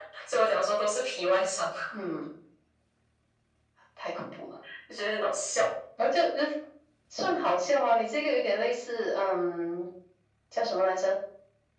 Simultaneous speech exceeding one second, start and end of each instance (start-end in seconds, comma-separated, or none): none